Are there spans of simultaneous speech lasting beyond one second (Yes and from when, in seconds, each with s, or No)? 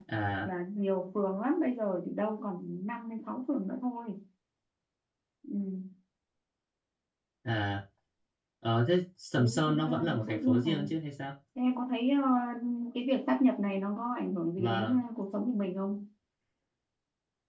Yes, from 9.4 s